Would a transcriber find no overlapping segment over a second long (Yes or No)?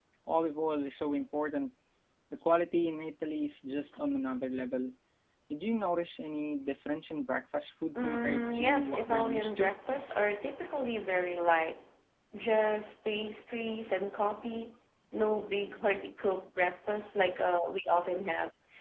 No